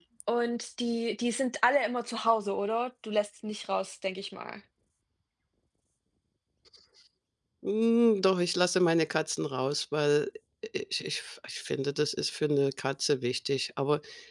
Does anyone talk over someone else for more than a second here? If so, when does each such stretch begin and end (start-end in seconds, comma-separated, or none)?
none